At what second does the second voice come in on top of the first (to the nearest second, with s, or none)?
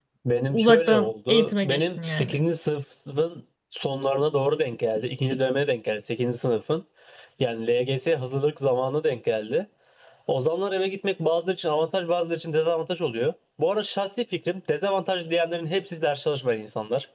1 s